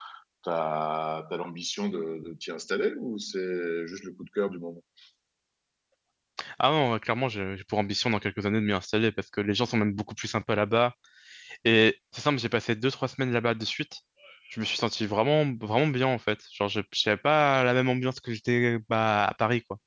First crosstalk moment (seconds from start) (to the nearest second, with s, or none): none